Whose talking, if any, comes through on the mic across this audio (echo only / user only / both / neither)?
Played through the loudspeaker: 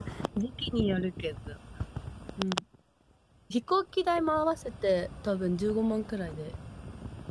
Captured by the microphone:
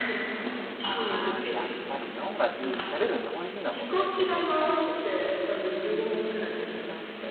both